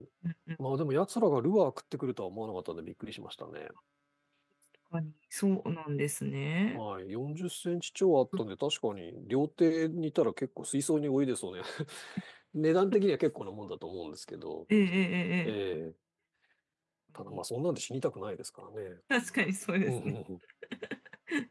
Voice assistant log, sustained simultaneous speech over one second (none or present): none